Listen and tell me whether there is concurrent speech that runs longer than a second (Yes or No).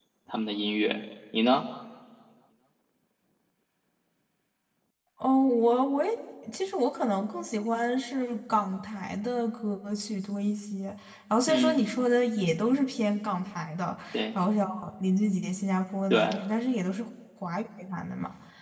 No